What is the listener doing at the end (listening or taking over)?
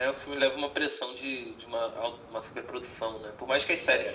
listening